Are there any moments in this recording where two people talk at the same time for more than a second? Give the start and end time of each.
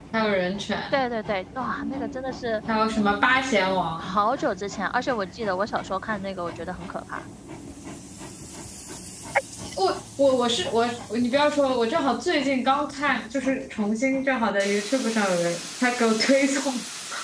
none

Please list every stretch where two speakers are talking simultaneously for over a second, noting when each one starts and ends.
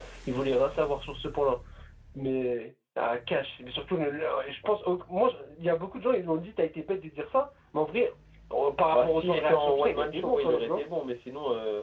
8.9-10.8

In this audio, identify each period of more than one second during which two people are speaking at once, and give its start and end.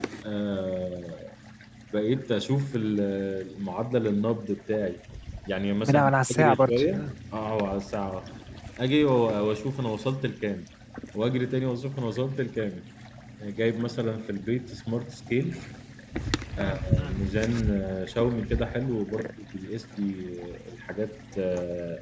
5.8-7.1

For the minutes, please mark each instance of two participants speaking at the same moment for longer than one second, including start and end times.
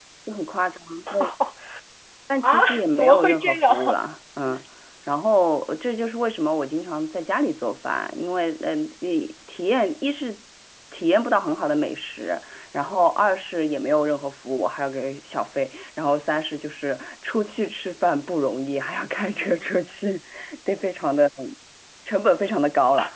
2.4-4.0

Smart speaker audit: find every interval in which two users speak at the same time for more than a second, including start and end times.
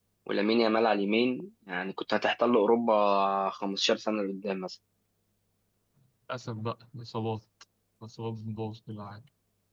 none

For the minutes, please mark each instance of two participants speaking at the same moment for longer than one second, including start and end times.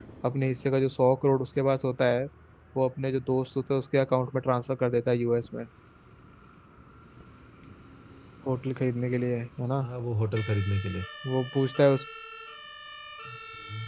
none

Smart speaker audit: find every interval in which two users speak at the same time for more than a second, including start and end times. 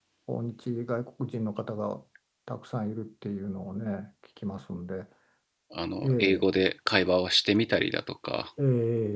none

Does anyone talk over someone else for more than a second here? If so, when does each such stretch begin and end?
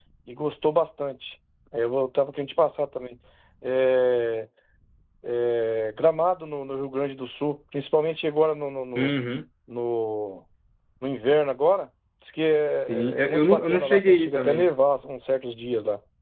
12.7-14.7

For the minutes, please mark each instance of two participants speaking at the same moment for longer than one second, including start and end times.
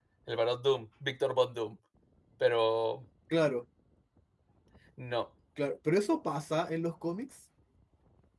none

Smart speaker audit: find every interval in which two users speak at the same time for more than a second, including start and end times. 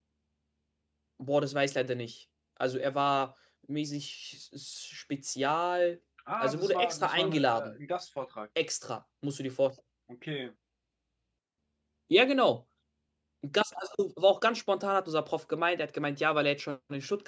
6.4-7.8

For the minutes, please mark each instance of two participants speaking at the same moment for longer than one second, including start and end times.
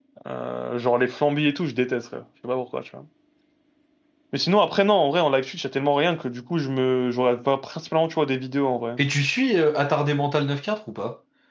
none

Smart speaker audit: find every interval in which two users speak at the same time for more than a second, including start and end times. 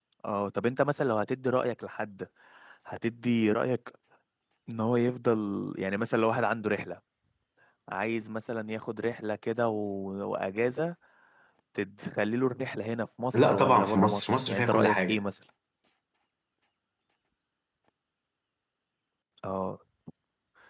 13.3-15.2

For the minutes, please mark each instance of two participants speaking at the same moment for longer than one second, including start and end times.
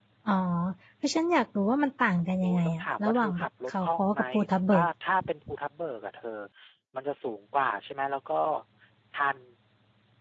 2.4-4.2

